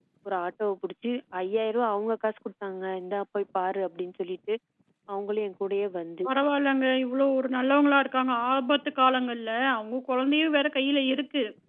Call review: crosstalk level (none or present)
none